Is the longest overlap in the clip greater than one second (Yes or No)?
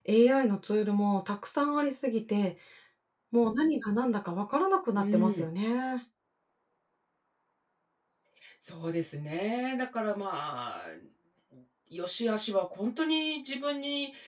No